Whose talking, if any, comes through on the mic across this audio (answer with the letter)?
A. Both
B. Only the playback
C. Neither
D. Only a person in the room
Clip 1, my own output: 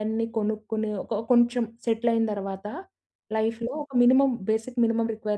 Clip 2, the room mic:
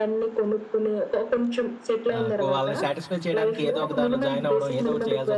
A